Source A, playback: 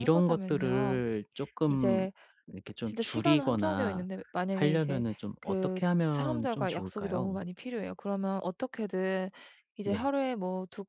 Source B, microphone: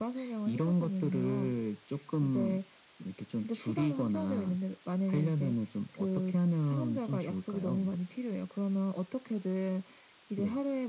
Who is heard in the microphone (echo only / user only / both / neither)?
echo only